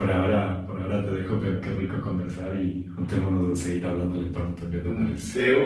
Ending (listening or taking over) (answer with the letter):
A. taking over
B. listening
A